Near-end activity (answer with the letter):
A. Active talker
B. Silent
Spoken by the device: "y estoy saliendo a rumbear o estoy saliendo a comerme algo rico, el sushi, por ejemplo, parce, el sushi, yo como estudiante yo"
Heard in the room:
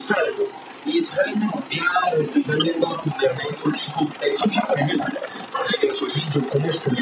B